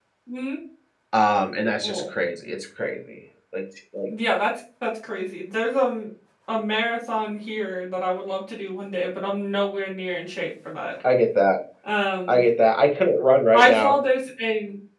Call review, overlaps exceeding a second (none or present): none